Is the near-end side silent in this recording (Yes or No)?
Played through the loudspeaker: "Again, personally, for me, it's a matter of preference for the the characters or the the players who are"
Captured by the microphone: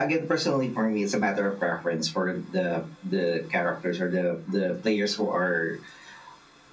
Yes